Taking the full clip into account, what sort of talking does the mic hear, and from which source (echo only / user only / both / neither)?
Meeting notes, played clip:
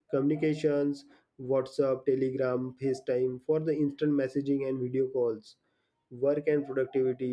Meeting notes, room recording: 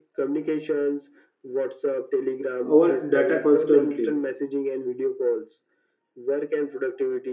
both